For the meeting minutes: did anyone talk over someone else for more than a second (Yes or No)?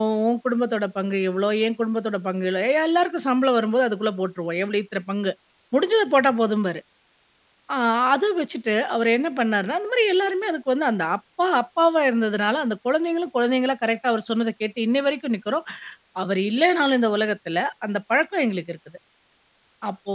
No